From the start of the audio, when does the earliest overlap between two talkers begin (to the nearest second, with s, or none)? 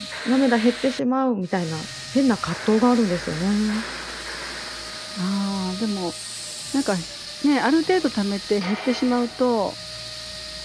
none